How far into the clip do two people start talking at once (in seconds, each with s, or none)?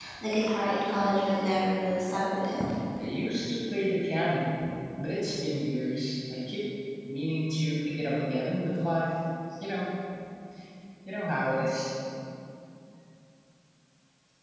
none